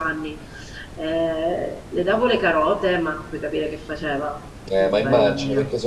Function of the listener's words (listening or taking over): taking over